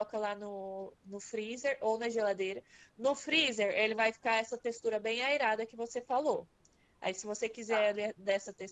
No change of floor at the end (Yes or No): Yes